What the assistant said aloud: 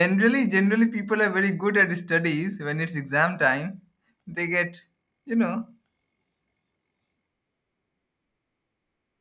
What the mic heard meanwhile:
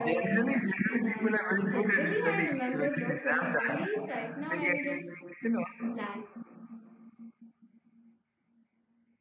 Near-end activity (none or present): present